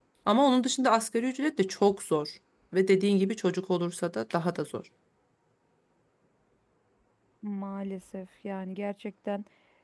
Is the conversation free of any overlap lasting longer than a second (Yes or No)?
Yes